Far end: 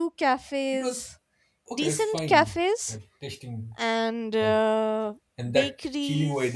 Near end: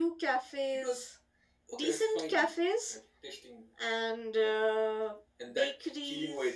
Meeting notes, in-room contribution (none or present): none